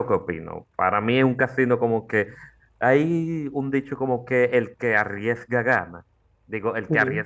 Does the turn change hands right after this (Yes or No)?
No